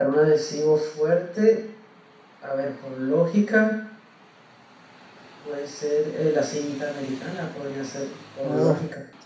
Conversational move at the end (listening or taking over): taking over